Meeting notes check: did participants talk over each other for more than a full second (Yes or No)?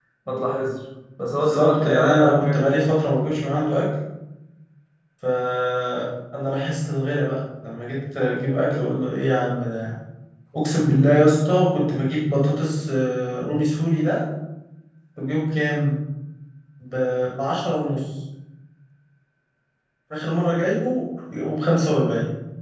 Yes